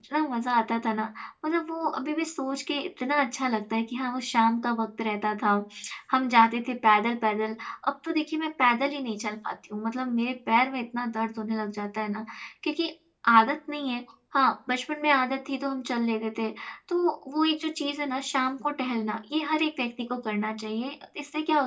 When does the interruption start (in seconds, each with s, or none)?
none